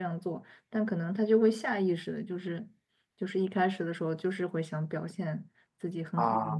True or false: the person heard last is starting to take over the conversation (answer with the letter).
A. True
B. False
B